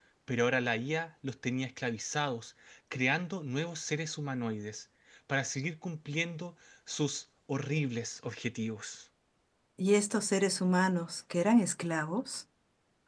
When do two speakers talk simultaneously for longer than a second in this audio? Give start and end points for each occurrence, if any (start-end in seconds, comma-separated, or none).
none